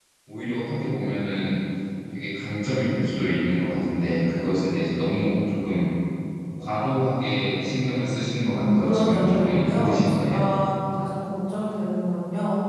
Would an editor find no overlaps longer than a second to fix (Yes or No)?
No